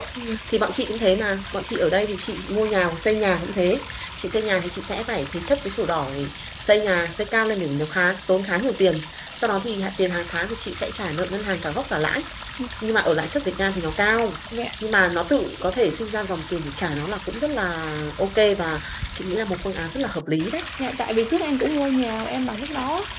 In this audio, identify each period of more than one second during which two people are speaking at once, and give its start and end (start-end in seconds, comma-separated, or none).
none